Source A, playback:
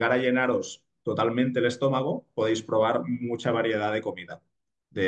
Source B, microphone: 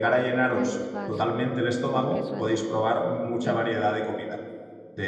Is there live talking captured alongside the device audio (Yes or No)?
Yes